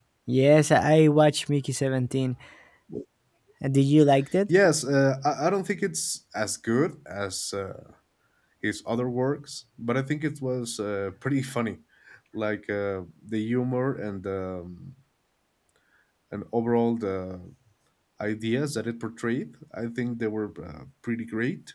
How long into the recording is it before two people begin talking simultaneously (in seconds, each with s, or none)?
none